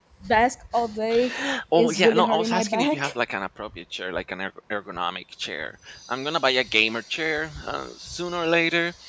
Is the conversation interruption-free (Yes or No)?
No